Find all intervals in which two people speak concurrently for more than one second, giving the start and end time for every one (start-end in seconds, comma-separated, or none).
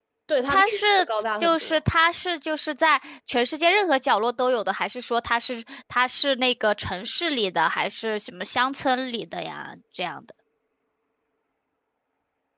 none